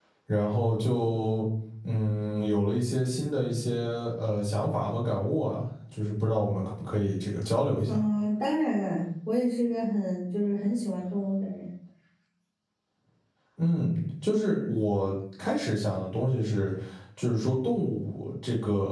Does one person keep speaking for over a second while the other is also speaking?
No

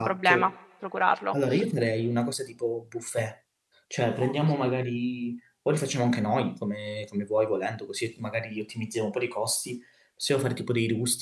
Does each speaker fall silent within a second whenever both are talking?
Yes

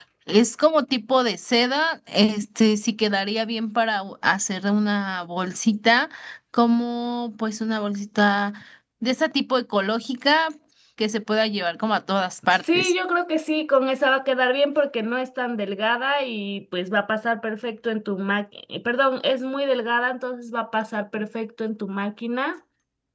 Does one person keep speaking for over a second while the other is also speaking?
No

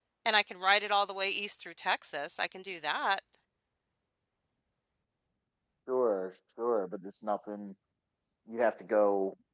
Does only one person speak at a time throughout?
Yes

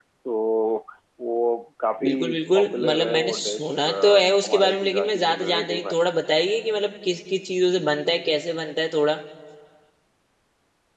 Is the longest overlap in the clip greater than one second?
Yes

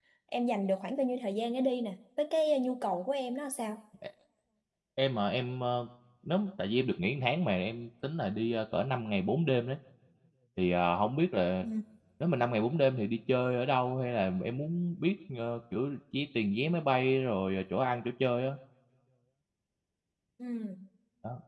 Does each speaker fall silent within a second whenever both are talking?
Yes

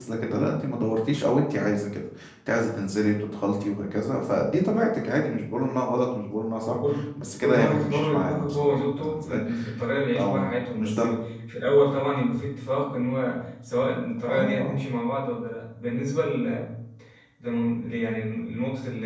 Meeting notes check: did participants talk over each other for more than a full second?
Yes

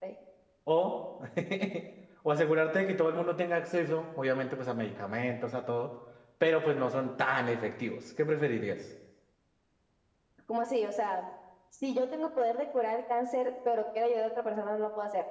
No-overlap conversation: Yes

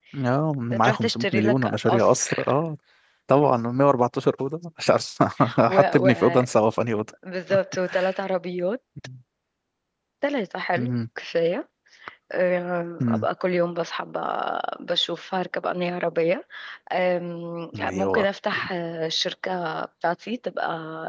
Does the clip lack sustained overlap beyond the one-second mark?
No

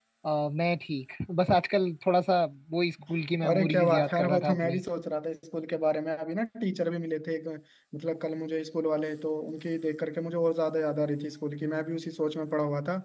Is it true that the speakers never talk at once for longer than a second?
No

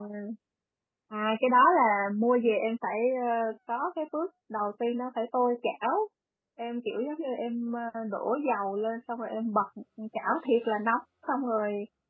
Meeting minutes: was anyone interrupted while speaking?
No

